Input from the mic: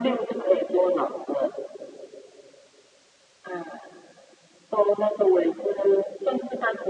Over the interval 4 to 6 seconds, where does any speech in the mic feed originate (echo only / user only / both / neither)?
echo only